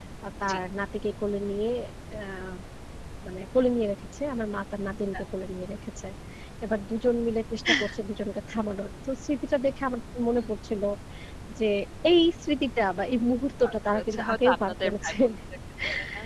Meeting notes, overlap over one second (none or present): present